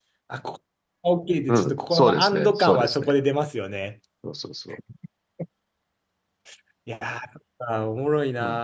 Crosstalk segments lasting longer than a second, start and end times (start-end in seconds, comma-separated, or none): 1.5-3.1